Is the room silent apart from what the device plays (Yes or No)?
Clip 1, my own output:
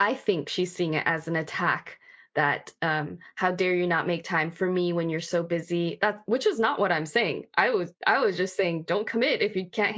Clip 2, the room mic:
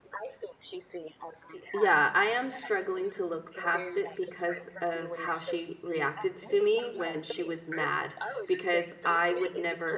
No